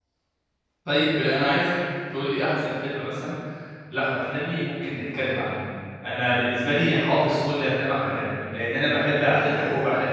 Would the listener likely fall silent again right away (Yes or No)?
Yes